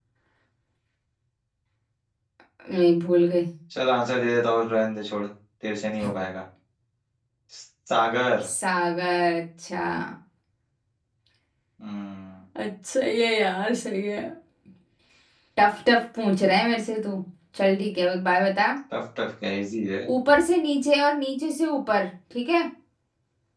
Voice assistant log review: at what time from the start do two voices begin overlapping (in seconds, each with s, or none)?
none